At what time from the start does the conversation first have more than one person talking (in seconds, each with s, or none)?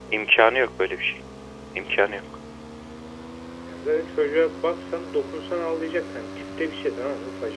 none